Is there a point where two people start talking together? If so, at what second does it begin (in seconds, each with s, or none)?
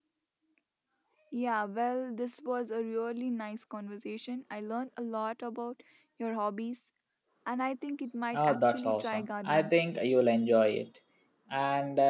8.3 s